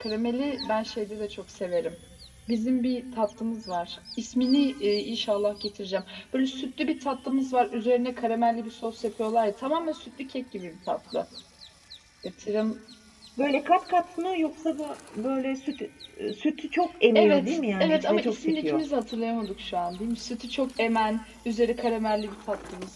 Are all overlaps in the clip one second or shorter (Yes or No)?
No